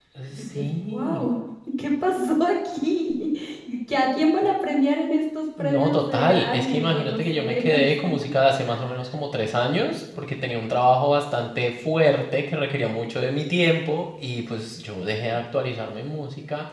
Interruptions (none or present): present